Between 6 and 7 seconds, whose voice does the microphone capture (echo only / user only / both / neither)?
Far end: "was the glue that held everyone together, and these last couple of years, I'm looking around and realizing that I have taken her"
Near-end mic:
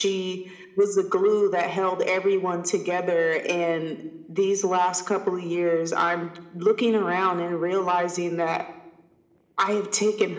echo only